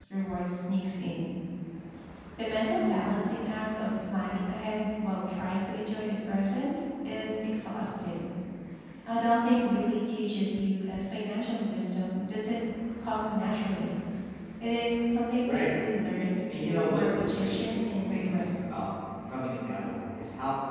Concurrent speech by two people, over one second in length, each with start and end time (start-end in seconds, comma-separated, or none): 16.5-18.5